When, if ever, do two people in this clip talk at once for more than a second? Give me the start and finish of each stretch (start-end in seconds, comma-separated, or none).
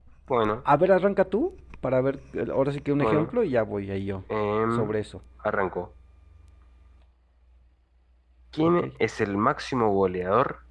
none